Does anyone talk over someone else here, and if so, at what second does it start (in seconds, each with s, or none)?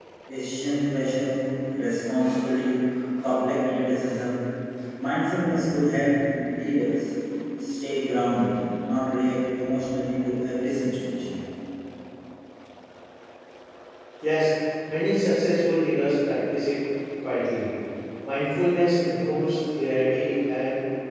none